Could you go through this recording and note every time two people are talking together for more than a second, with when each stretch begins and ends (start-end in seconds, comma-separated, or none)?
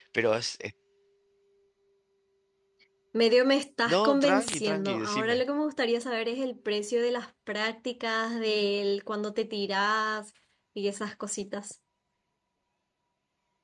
3.9-5.4